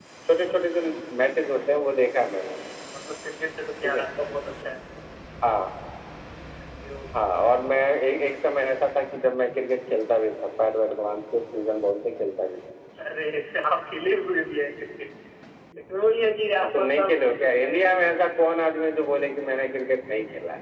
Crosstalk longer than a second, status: present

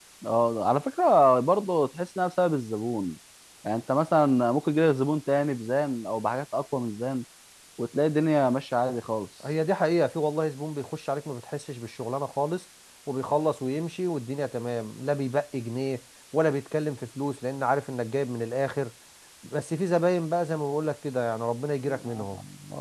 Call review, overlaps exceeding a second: none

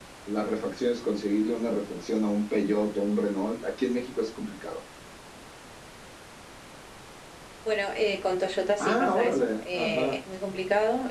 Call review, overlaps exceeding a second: present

